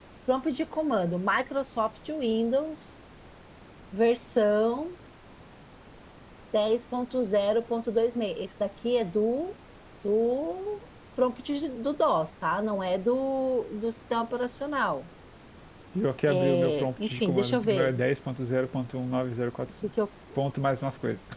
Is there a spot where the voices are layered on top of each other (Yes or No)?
Yes